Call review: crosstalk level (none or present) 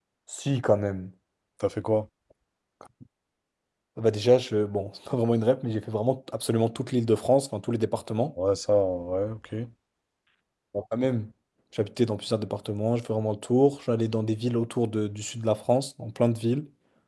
none